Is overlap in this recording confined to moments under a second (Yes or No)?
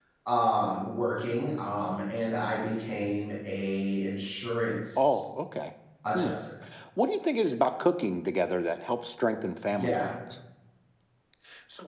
Yes